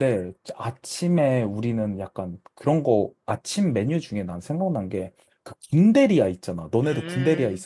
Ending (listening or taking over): taking over